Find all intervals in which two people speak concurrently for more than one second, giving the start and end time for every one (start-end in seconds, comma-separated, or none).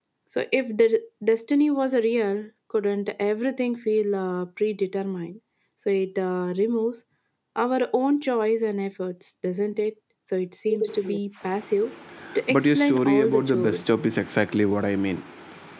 12.5-13.8